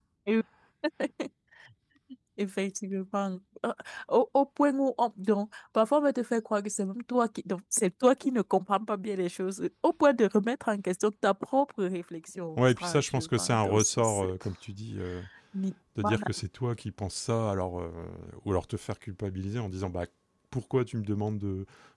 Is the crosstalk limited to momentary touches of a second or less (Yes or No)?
No